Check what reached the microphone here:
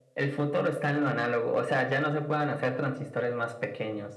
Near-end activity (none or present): none